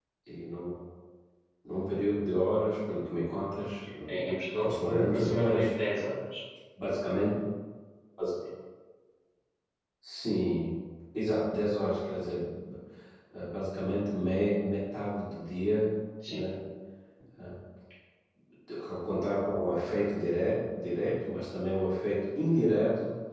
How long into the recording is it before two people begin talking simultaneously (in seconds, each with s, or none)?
4.5 s